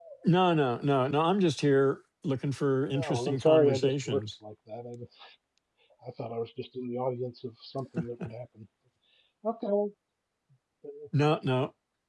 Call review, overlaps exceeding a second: present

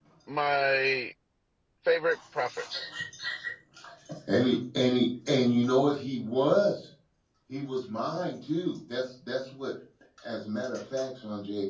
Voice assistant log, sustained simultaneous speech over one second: none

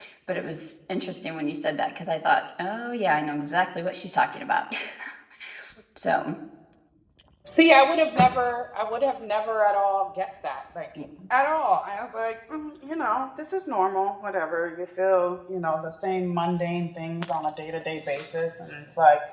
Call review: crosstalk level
none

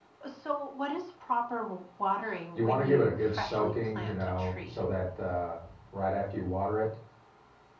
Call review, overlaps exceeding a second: present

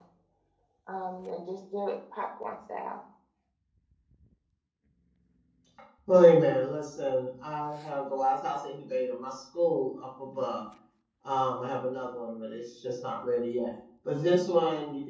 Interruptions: none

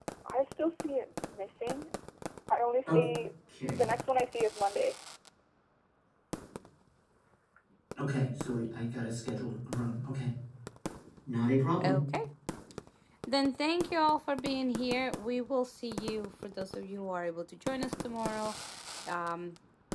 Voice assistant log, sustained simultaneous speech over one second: none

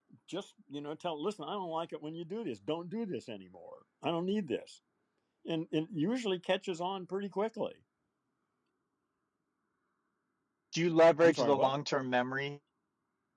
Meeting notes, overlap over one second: none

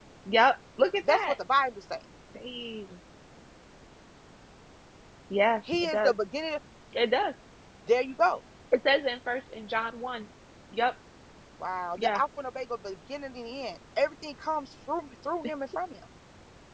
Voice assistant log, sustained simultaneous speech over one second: none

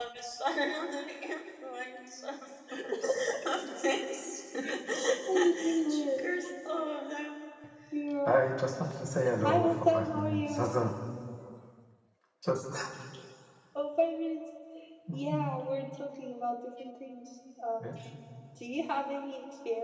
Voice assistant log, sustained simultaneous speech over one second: present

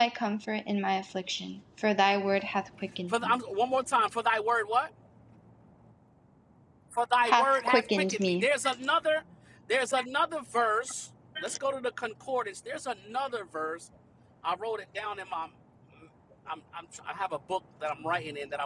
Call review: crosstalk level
present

